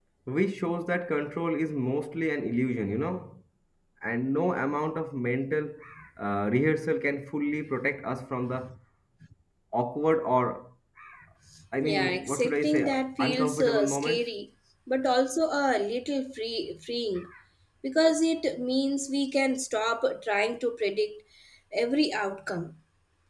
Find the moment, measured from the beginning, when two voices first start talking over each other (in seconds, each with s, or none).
11.8 s